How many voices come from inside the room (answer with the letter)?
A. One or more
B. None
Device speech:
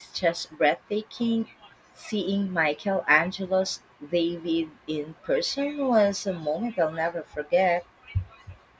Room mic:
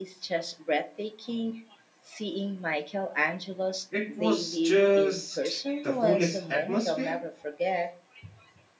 A